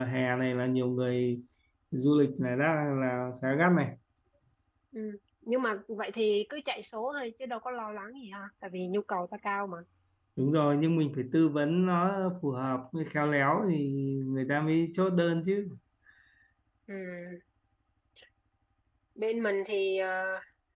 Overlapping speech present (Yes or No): No